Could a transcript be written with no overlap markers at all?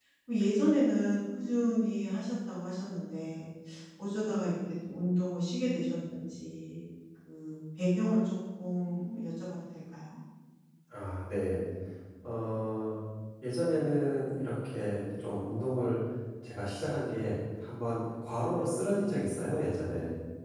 Yes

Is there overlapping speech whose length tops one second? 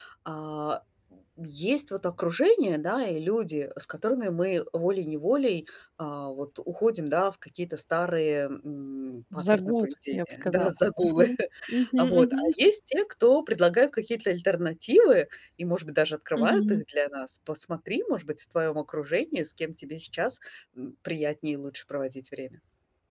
Yes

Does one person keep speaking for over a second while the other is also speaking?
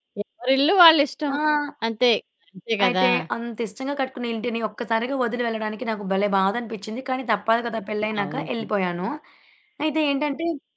No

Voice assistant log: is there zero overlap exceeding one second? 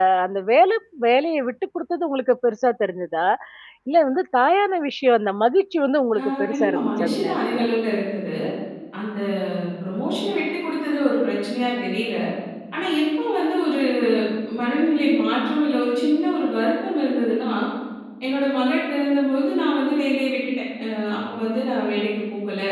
No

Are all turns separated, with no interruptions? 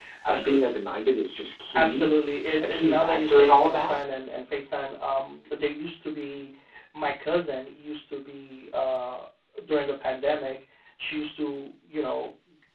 No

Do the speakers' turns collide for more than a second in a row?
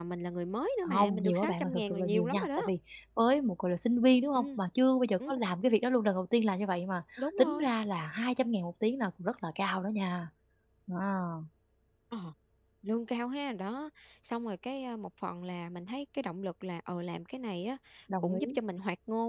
Yes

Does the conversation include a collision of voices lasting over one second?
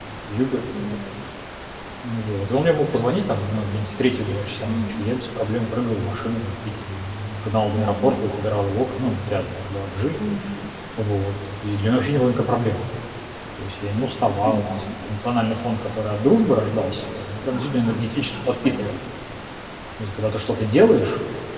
Yes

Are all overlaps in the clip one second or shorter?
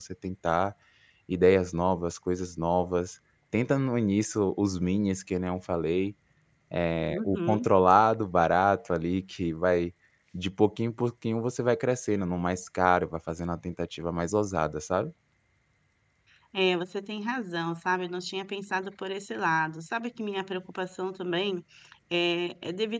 Yes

